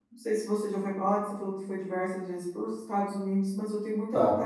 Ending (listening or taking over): listening